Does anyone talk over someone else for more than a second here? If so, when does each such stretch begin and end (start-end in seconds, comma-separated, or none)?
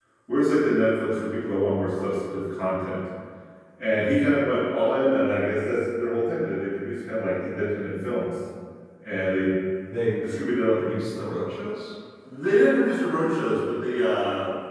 none